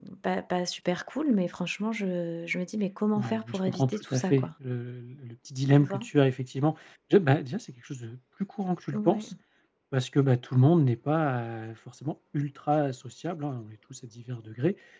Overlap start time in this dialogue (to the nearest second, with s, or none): 3 s